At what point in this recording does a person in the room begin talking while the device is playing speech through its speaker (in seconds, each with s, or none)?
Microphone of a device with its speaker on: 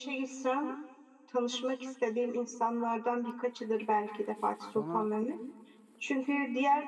4.6 s